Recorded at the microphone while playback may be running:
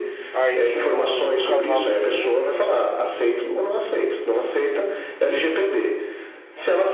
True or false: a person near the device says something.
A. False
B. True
B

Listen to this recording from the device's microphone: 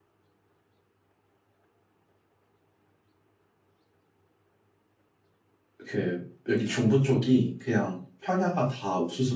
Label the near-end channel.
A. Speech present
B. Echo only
A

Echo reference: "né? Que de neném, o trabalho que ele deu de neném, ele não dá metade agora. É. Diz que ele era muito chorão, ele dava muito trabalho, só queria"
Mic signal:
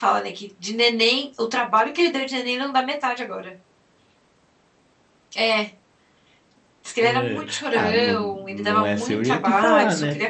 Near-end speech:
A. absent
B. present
B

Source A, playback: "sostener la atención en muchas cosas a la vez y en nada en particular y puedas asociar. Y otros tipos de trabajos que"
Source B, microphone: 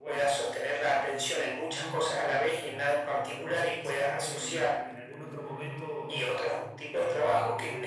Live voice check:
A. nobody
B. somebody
B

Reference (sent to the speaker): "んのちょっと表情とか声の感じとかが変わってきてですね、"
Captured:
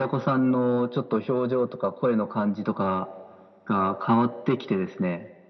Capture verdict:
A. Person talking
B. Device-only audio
B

